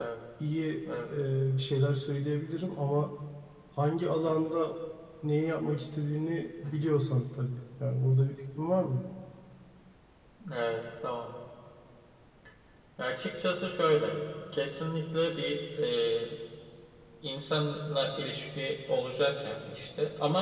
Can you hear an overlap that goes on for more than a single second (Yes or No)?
No